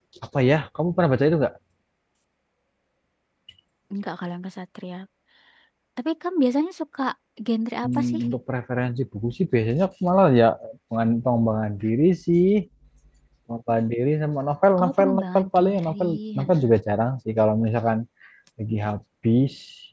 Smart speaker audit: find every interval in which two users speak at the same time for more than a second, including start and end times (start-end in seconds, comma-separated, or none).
14.8-16.7